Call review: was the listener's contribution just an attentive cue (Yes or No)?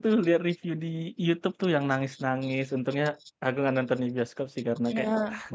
No